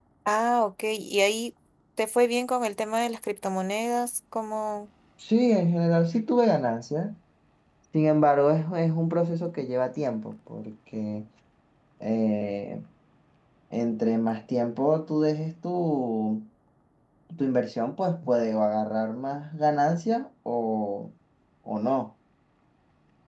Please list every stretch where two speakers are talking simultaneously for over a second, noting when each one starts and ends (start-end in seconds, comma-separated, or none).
none